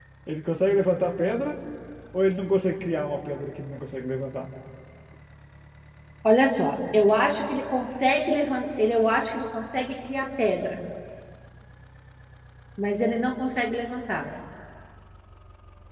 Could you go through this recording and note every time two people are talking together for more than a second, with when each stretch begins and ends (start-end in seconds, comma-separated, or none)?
none